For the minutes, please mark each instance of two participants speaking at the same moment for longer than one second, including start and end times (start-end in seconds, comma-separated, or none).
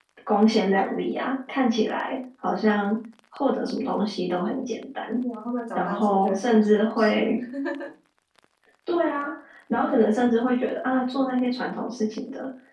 5.7-7.1